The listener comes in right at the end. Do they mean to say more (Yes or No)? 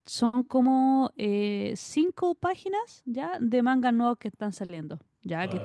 No